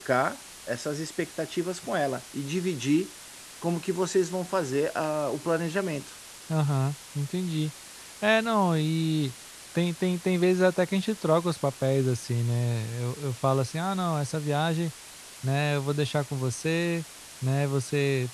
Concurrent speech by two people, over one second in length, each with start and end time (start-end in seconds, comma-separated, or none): none